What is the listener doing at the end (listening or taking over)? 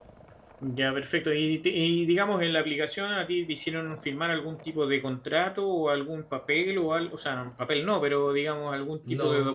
listening